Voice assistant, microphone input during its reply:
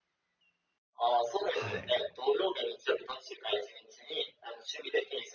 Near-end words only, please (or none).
はい。